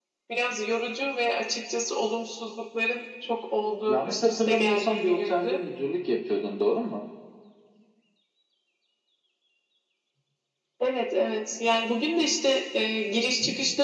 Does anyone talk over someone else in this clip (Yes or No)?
Yes